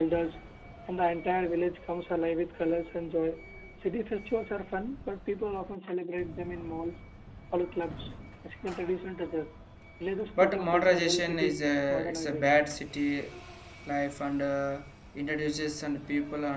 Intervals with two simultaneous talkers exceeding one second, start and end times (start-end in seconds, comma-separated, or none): 10.4-12.5